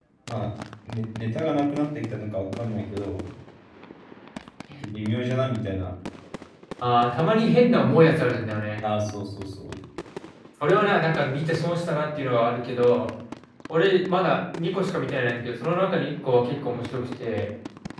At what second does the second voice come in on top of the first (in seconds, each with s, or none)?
none